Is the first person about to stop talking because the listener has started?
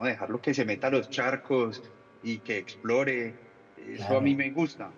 No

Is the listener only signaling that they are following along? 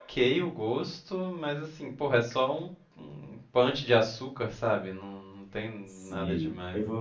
No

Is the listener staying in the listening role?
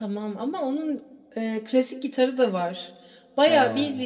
Yes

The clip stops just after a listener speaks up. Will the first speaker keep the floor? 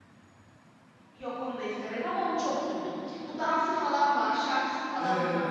No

